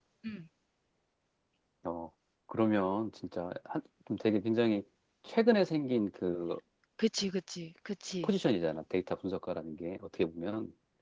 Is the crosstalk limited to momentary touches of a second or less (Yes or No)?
Yes